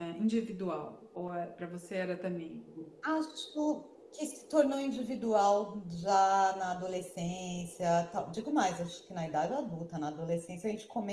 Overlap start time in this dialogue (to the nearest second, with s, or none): none